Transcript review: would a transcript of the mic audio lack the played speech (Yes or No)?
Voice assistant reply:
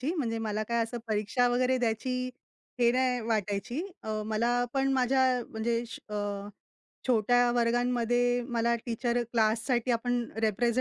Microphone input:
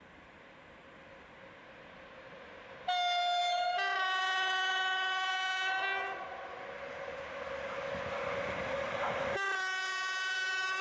Yes